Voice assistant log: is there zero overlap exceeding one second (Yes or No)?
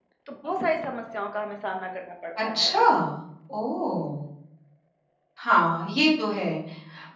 Yes